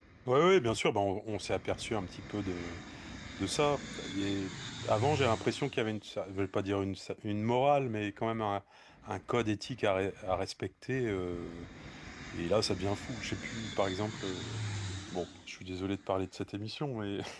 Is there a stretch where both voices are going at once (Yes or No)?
No